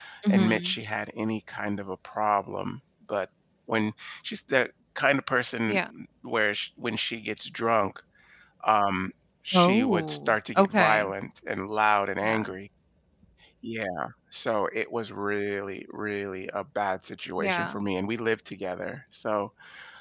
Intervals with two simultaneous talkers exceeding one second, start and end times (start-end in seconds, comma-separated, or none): 9.5-11.1